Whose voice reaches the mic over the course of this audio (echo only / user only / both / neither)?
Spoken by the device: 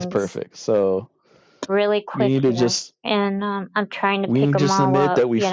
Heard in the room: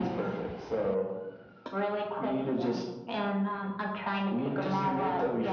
echo only